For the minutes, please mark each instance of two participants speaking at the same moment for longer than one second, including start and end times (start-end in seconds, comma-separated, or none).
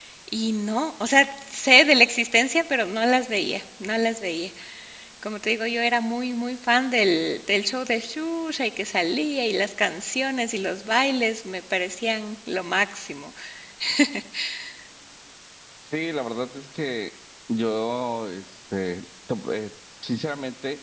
none